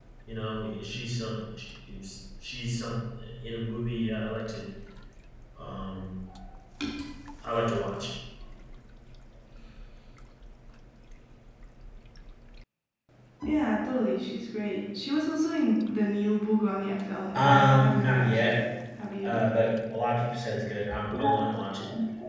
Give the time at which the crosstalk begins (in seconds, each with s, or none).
17.3 s